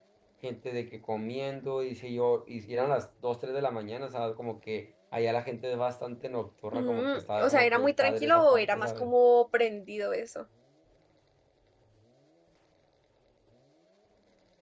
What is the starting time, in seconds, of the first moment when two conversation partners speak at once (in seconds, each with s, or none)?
6.7 s